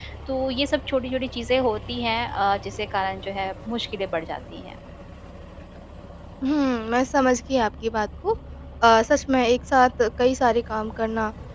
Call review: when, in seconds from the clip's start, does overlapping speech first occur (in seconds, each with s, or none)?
none